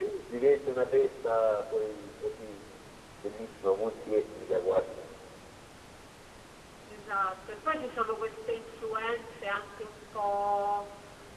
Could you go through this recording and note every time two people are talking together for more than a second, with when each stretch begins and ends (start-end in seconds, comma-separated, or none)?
none